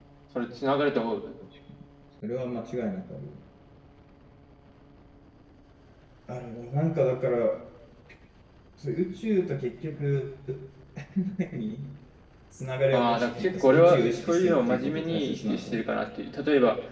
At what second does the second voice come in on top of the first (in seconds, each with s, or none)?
12.9 s